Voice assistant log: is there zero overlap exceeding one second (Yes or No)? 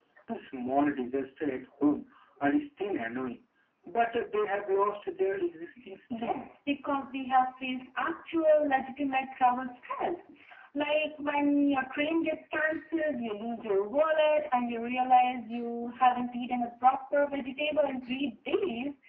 Yes